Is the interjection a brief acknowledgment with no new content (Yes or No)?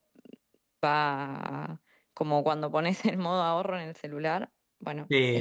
No